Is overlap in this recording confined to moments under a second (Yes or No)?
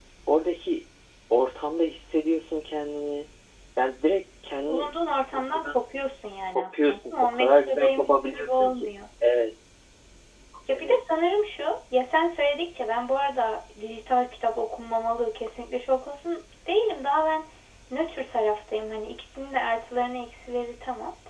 No